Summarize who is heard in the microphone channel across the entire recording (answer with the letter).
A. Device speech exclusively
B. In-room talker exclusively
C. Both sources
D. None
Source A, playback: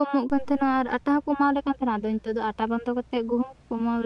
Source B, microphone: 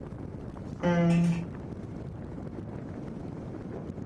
B